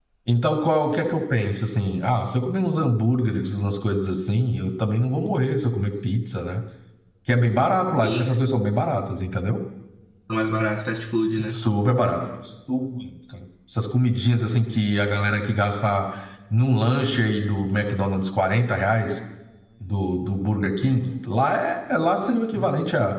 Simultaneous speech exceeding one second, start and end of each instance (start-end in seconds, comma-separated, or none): none